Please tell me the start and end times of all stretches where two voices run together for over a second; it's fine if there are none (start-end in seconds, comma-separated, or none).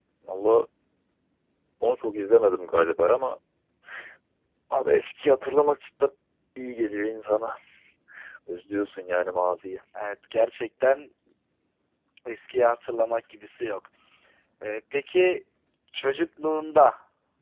none